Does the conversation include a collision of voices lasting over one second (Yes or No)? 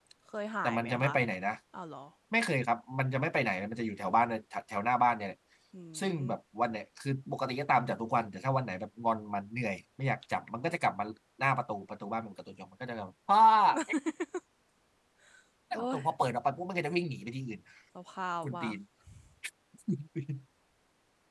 No